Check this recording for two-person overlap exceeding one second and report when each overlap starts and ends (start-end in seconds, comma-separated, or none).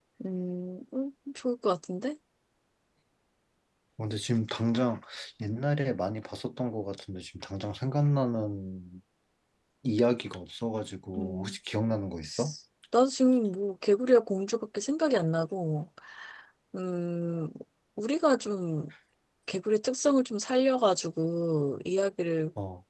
none